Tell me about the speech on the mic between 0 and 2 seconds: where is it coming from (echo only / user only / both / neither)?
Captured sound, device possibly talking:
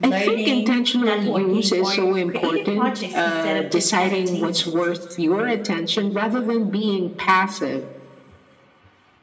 both